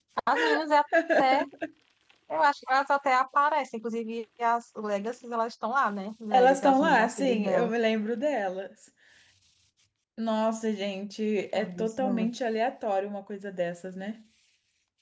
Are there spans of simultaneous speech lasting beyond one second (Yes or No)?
Yes